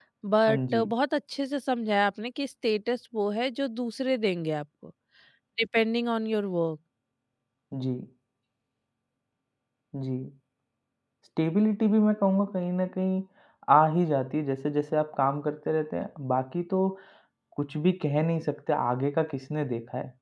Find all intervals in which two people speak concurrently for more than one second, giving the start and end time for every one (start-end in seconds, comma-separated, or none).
none